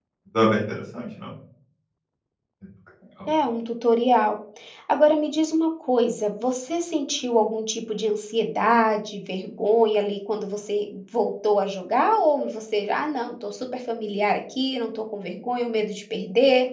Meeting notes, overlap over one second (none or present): none